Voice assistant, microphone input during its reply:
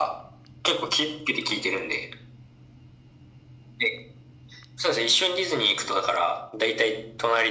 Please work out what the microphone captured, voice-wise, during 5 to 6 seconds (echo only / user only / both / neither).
echo only